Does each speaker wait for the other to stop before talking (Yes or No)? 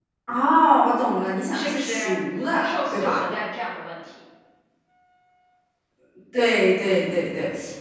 No